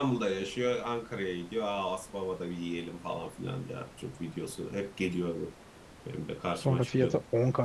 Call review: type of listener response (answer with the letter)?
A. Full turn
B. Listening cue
A